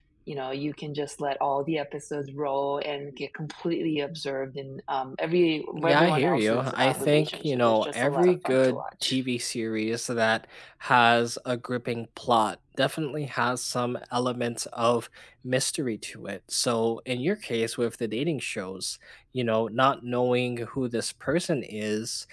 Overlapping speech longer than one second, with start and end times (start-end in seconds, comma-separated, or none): 5.8-9.2